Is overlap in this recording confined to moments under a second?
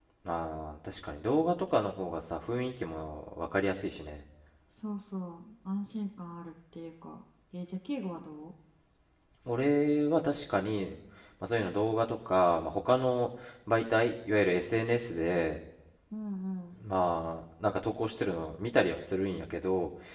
Yes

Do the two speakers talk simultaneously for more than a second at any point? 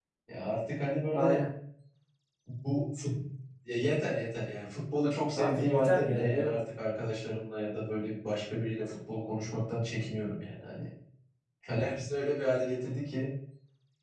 Yes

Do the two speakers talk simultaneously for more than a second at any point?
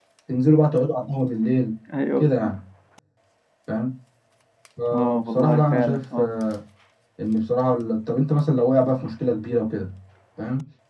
Yes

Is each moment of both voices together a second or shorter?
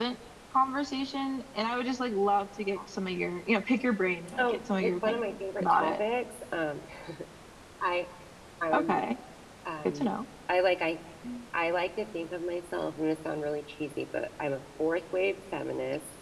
No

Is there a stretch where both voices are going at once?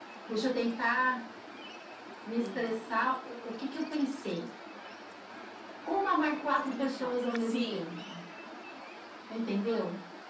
Yes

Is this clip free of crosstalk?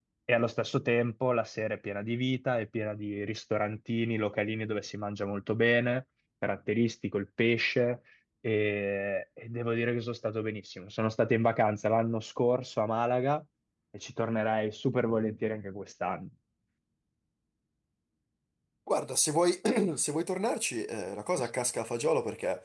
Yes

